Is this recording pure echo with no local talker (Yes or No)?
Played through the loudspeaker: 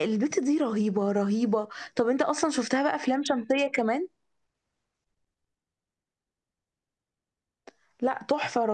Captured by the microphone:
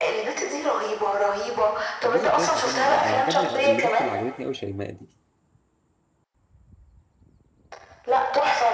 No